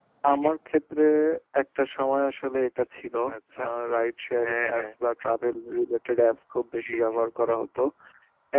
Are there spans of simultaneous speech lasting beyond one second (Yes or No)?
No